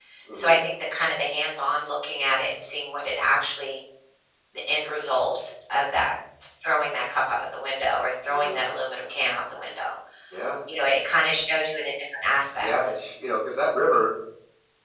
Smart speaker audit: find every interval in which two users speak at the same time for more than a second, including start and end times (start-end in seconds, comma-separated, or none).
none